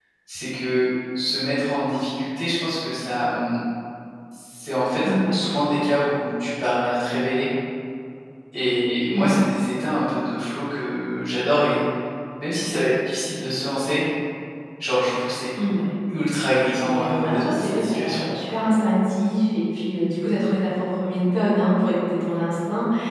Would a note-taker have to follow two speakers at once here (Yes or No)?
Yes